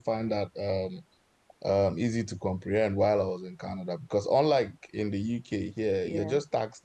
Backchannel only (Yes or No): Yes